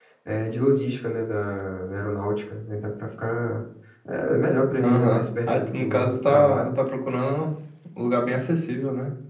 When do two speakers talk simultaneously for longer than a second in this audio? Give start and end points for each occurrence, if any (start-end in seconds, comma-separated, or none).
4.8-6.8